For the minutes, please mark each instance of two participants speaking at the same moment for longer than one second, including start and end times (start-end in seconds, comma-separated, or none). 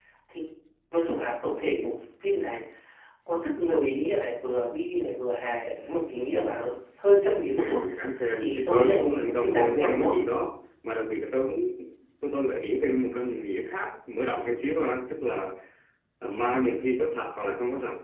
8.3-10.1